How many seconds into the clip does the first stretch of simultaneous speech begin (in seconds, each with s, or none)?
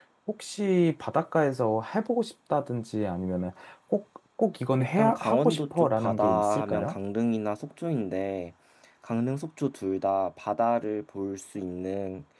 4.8 s